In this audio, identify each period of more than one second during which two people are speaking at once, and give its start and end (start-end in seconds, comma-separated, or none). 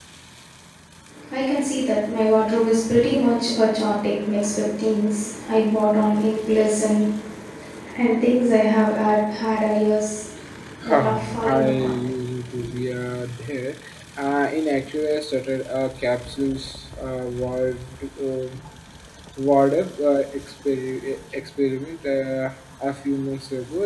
10.8-12.1